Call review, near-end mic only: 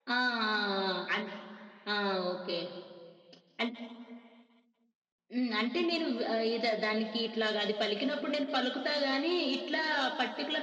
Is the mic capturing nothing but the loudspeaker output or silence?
Yes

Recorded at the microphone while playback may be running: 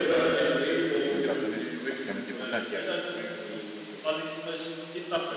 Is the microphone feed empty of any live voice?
No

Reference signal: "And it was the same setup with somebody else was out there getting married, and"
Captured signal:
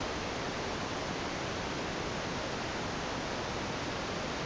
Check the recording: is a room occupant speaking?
No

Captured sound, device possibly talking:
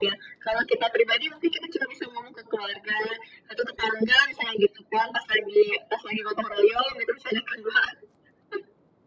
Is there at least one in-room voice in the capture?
No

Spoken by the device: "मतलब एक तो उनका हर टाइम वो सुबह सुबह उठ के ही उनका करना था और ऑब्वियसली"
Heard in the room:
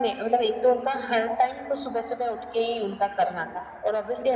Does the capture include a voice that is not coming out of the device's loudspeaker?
No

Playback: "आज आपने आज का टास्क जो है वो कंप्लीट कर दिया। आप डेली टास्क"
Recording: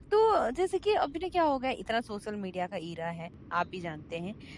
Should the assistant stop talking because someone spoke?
Yes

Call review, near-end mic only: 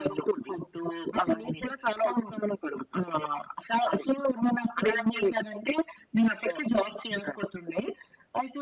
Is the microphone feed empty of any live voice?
Yes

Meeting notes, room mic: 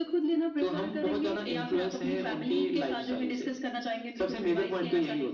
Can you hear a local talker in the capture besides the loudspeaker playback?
No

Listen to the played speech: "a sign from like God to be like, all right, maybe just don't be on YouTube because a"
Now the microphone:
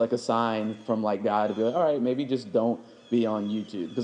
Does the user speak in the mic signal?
No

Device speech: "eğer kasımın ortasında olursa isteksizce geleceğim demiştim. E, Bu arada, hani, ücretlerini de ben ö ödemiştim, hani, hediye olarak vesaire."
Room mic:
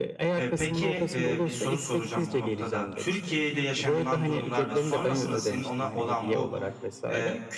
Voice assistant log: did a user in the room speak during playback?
Yes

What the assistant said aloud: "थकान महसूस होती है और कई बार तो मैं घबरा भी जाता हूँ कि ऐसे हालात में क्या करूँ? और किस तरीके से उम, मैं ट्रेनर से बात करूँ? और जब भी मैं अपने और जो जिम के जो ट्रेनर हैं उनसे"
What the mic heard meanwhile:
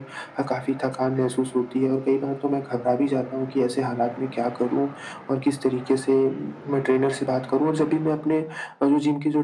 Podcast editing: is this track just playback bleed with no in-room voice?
Yes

